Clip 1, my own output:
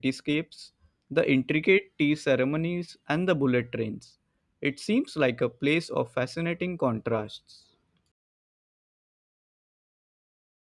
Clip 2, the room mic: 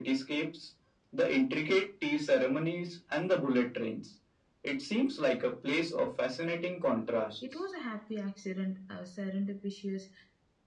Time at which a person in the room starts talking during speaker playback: 7 s

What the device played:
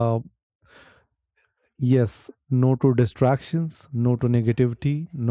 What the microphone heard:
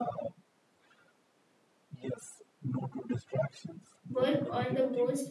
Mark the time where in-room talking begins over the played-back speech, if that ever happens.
4 s

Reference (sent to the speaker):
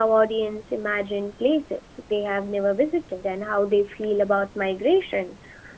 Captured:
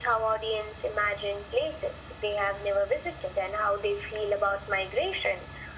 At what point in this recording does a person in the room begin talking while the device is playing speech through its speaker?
none

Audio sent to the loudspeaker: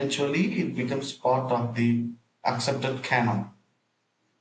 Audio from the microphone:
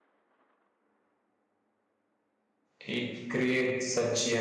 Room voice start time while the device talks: 3 s

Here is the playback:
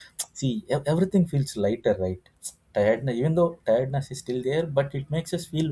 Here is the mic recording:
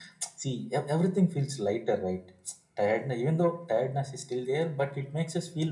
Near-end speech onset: none

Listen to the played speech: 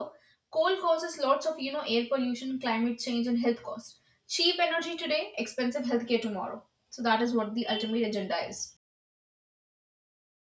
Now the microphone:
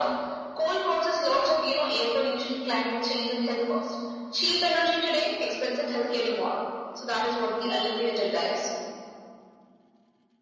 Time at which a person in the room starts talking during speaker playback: none

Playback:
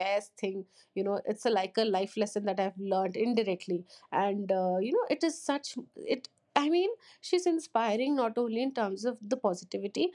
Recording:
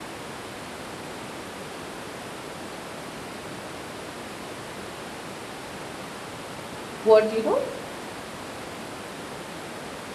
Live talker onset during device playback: 7 s

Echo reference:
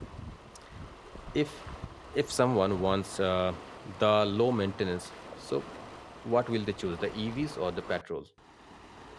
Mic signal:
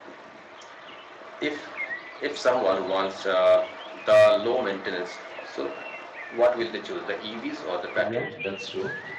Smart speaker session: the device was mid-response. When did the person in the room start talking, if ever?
8 s

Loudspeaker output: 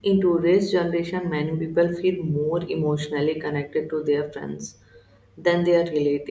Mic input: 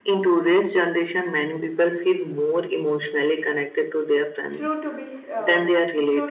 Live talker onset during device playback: 5 s

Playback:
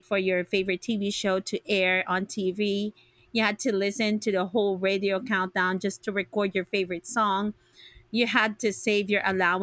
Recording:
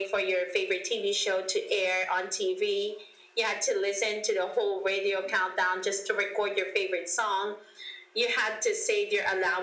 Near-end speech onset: none

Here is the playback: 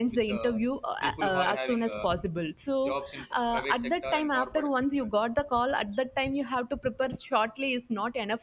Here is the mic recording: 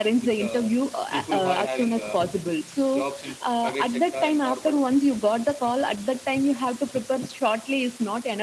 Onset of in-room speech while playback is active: none

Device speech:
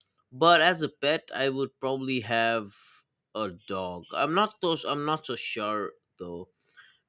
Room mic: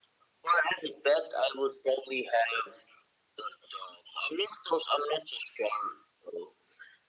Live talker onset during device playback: none

